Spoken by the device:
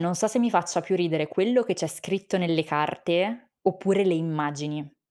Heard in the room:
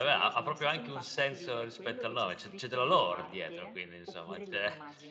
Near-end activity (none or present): present